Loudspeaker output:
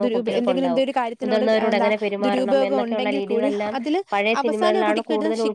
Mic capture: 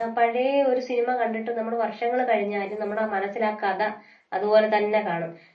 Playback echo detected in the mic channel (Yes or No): No